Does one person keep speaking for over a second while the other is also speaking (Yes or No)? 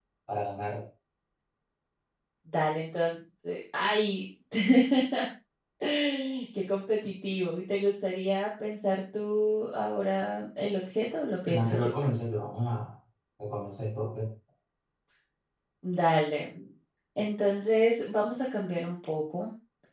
No